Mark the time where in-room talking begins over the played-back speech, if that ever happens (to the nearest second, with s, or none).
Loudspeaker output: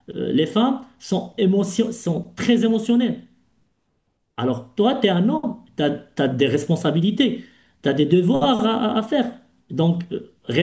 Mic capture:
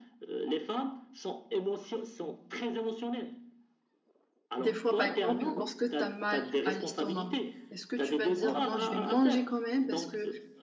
5 s